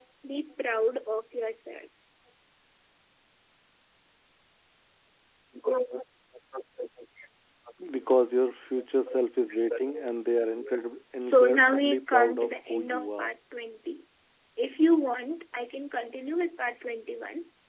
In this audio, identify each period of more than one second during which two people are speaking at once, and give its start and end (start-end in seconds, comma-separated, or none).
11.2-13.3